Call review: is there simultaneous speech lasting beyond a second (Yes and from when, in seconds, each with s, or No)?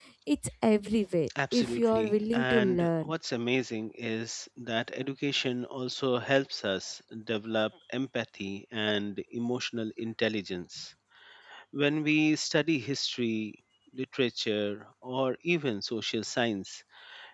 Yes, from 1.3 s